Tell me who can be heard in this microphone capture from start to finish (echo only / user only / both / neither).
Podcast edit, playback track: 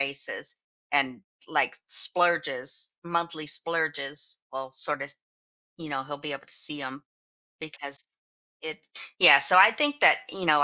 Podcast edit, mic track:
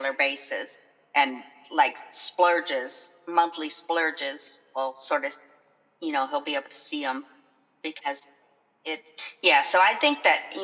echo only